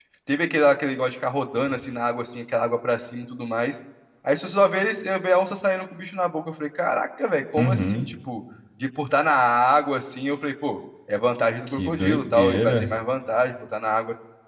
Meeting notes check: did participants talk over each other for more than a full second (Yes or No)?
Yes